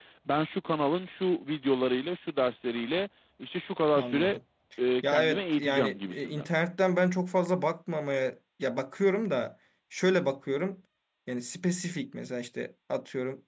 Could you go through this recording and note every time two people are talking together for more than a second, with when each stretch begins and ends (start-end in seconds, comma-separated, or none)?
5.0-6.5